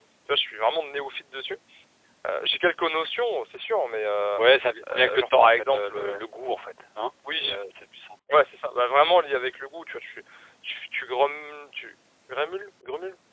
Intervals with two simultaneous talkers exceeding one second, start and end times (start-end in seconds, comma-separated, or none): 4.9-6.2